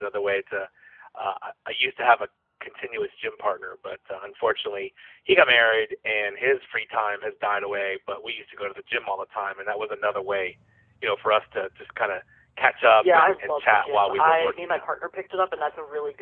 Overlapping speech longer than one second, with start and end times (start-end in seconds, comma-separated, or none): 13.0-14.8